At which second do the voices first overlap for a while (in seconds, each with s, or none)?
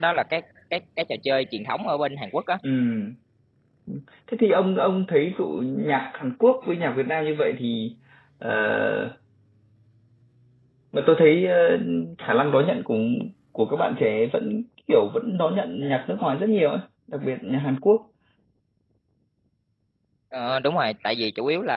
none